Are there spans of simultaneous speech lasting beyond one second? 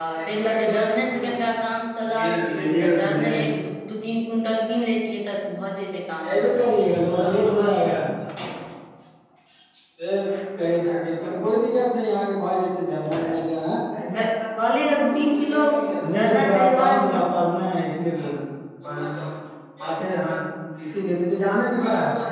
Yes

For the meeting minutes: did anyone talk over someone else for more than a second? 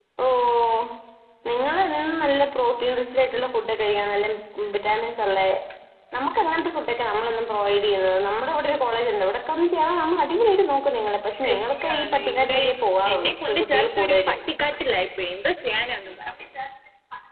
Yes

